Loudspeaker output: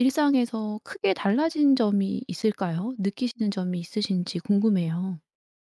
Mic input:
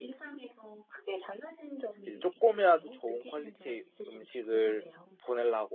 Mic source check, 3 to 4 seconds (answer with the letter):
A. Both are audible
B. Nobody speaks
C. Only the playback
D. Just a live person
A